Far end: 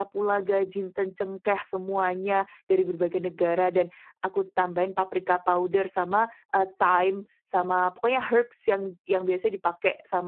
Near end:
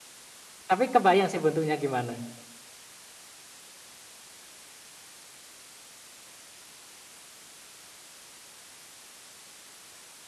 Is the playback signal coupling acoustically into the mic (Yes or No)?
No